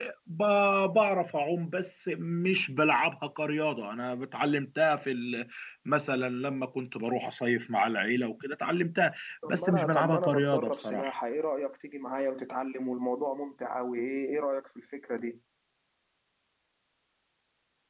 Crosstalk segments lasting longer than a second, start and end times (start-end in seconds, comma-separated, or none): 9.5-11.1